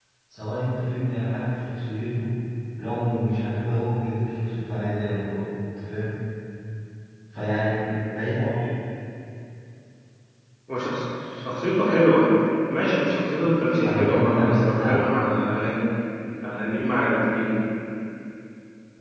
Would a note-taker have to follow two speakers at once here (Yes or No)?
Yes